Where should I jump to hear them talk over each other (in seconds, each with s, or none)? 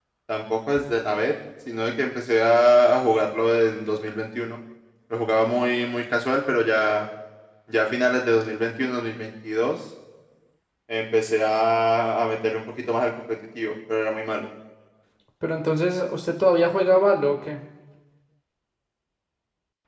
none